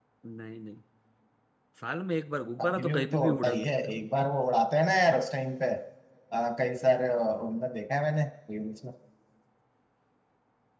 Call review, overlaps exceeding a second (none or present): present